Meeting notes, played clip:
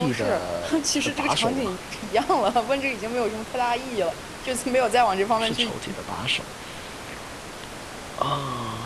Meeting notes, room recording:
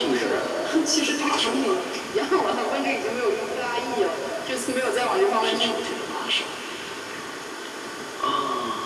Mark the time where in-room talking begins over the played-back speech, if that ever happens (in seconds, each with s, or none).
none